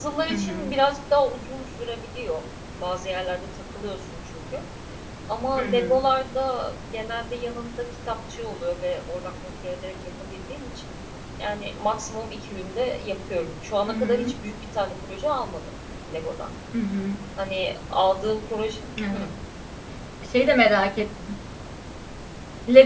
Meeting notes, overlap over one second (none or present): none